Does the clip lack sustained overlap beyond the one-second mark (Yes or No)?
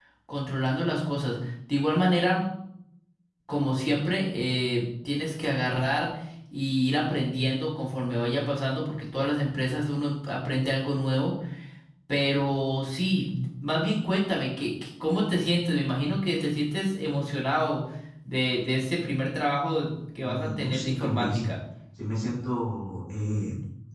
No